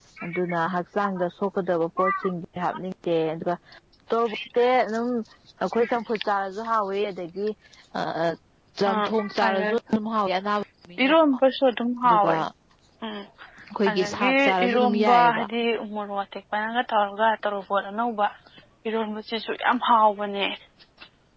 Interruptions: present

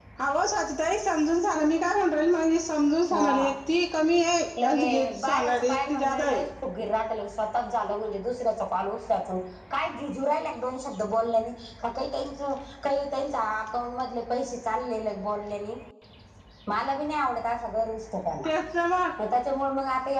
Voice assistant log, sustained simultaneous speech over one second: present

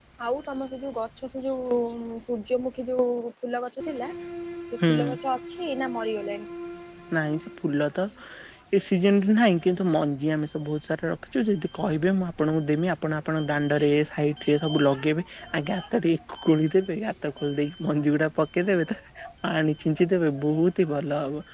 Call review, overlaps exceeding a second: none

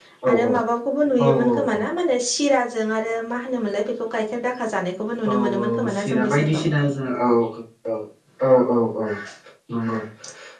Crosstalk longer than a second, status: present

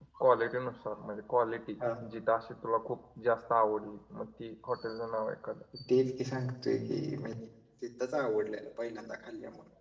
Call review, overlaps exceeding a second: none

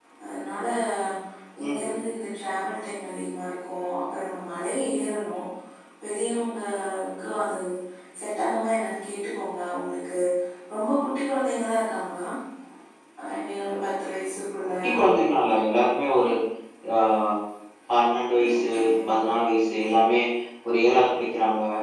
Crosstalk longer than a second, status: none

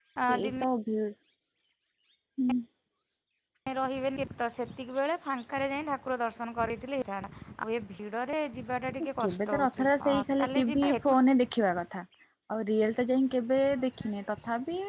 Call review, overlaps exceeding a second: present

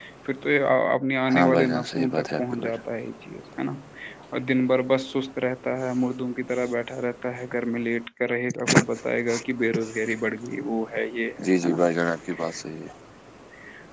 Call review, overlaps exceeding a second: present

